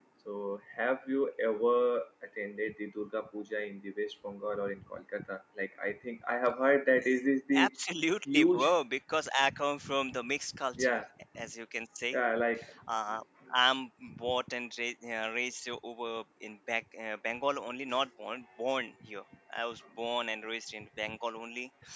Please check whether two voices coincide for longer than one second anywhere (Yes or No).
No